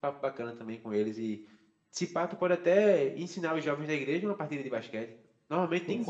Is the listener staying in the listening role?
No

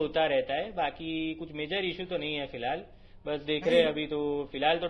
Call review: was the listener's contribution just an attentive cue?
Yes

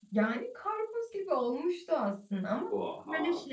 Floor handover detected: No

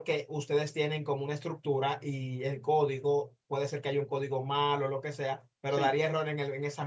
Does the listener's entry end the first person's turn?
No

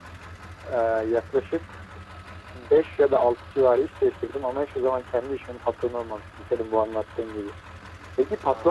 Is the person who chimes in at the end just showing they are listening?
Yes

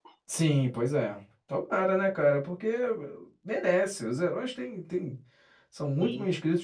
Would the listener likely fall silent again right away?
Yes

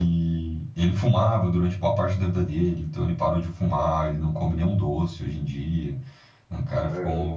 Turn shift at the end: No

